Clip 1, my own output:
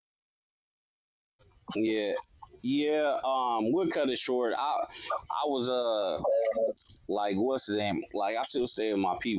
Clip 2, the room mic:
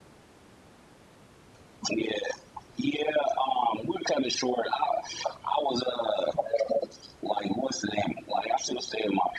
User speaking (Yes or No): No